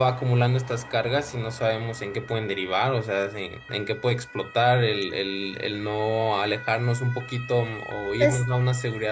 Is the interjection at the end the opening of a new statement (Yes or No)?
No